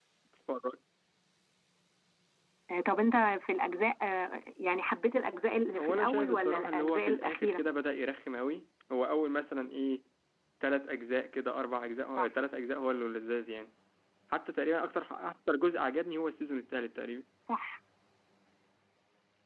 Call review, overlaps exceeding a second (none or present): present